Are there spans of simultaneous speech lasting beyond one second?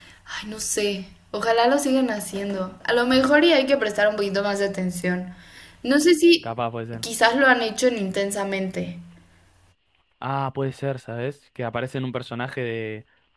No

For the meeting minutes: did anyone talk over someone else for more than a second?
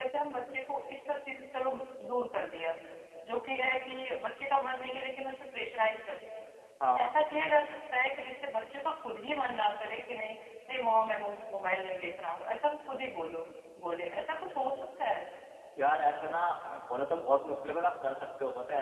No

